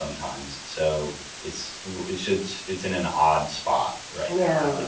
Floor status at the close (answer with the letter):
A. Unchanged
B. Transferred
B